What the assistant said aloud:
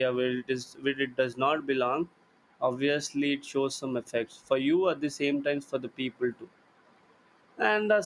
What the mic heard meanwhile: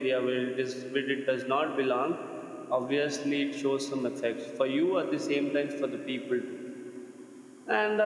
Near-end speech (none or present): none